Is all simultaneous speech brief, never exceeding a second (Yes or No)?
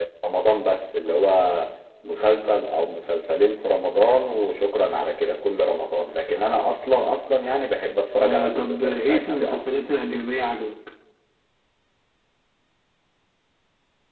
No